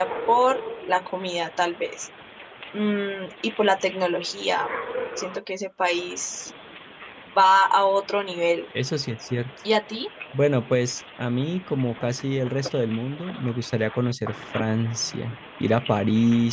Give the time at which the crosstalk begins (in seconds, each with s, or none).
none